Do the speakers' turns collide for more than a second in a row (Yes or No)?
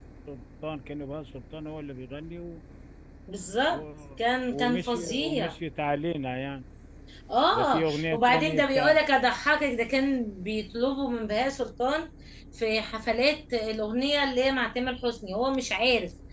Yes